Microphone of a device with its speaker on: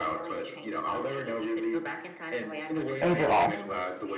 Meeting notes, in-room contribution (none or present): present